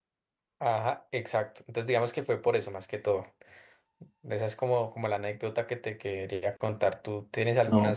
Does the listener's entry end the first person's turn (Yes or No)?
Yes